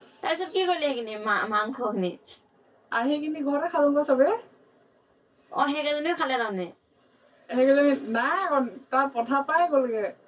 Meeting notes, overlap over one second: none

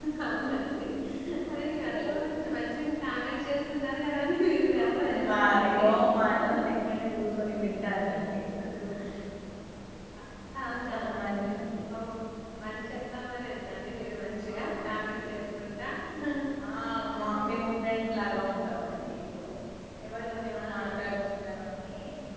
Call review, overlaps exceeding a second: present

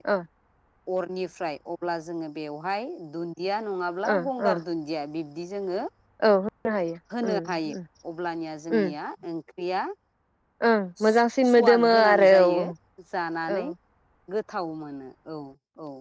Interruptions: present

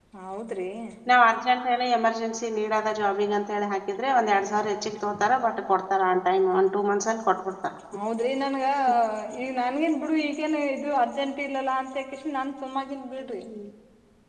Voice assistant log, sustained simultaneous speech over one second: none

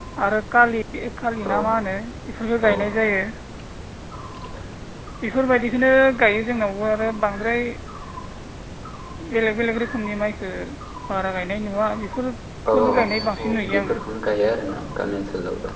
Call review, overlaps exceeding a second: present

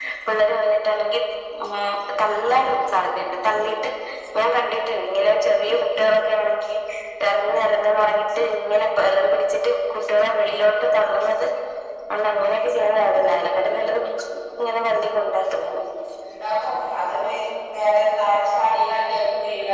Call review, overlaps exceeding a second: none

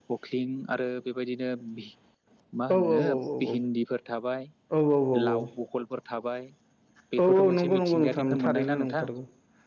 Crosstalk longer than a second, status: present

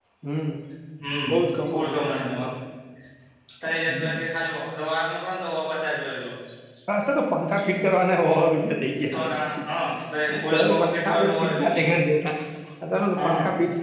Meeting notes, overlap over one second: present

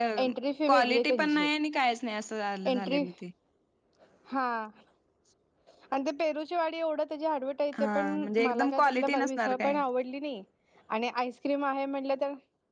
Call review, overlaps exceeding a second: present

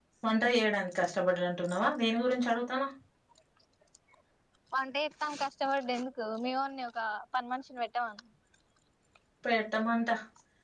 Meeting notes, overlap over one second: none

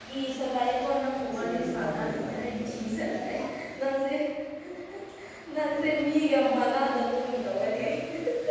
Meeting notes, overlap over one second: present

